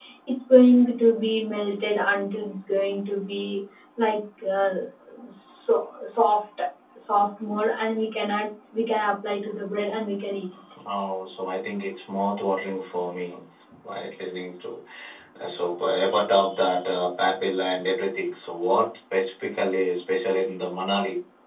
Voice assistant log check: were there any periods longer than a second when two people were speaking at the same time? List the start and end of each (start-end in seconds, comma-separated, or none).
none